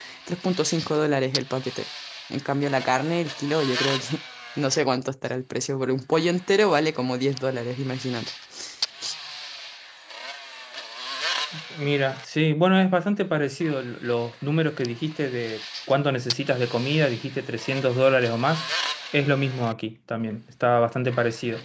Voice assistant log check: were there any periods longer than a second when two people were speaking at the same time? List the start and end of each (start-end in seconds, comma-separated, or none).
none